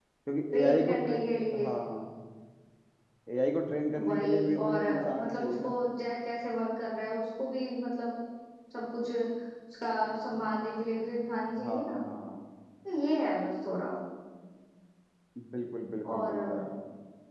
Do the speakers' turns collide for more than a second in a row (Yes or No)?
Yes